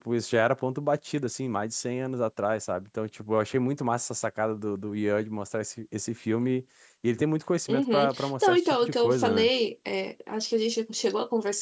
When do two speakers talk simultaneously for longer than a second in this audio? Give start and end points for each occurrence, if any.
7.7-9.5

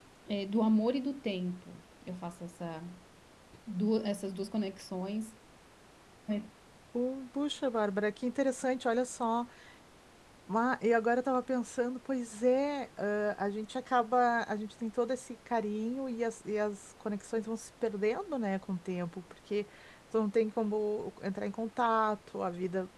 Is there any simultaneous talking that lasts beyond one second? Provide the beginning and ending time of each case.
none

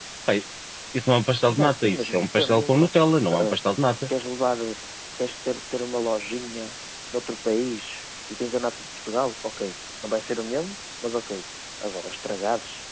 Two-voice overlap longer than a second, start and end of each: 1.5-2.9

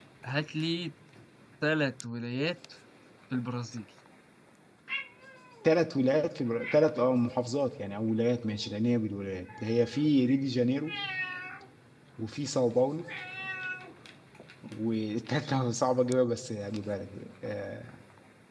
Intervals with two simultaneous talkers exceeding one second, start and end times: none

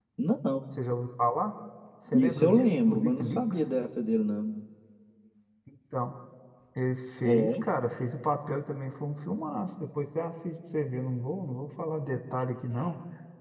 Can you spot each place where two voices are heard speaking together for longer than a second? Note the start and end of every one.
2.1-3.7

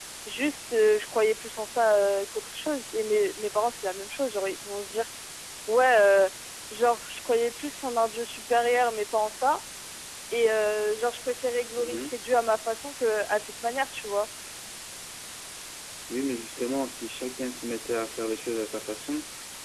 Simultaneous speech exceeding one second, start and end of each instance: none

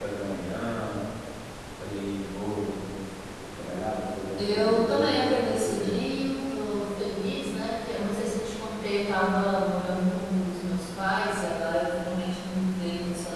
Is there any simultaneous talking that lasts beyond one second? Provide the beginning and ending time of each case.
4.4-6.0

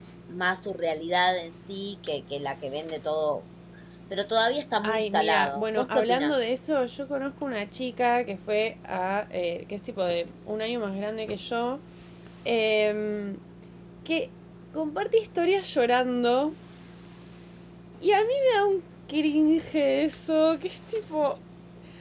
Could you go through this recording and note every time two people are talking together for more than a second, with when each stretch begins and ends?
4.8-6.5

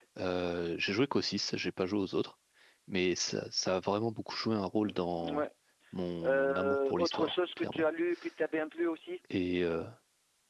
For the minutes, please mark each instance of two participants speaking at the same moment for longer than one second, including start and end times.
6.2-7.8

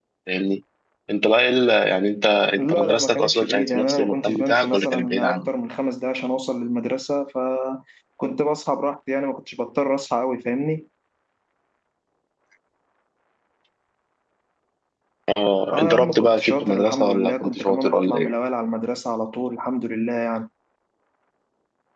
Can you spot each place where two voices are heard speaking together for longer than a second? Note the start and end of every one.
2.6-5.5, 15.7-18.3

